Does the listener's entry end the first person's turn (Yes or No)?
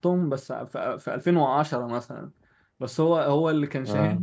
No